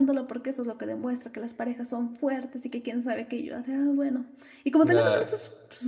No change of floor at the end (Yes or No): Yes